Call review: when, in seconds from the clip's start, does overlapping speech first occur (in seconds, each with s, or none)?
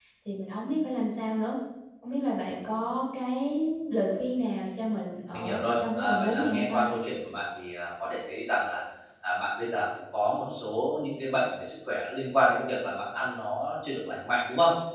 5.3 s